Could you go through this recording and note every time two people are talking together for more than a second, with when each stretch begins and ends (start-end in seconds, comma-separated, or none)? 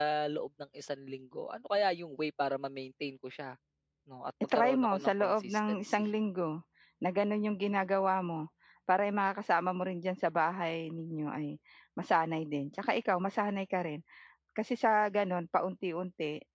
4.5-6.0